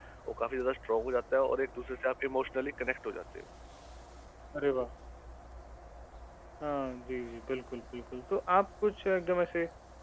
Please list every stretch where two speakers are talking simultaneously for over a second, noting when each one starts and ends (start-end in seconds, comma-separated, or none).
none